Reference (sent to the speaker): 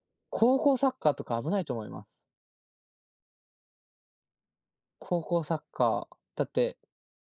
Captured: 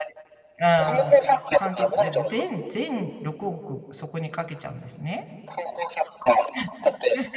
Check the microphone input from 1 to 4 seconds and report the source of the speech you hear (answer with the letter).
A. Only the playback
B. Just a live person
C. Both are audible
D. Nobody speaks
C